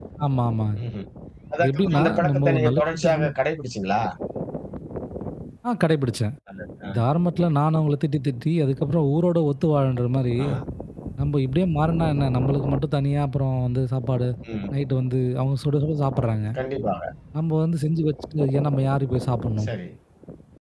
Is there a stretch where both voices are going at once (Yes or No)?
Yes